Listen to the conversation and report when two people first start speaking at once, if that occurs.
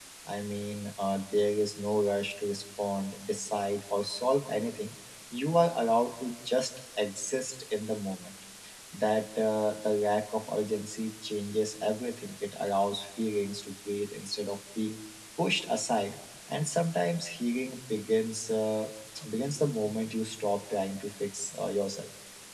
none

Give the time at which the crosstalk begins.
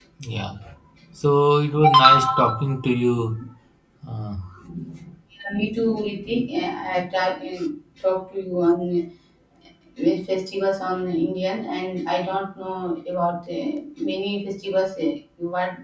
none

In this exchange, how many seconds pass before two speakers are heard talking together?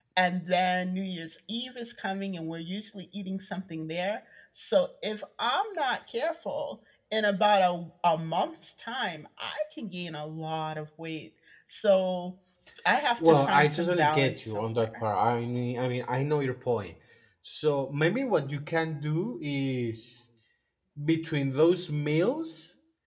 13.2 s

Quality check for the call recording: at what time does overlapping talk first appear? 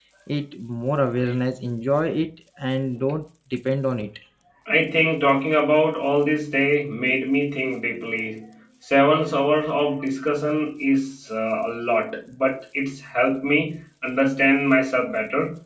none

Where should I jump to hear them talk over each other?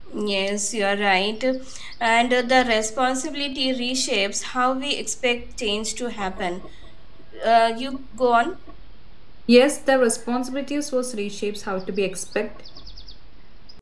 none

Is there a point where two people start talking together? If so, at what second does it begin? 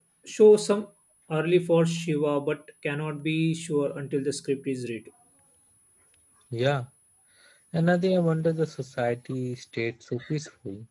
none

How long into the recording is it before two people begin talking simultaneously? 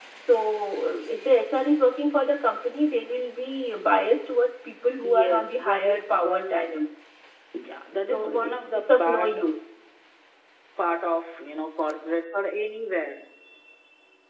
5.0 s

